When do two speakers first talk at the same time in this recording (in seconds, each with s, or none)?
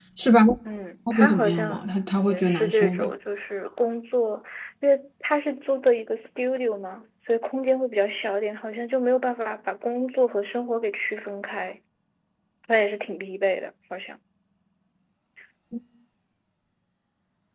1.1 s